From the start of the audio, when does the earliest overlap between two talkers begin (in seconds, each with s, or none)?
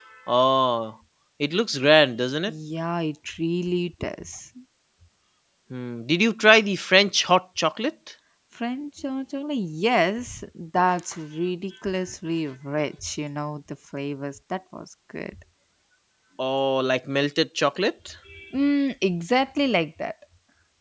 none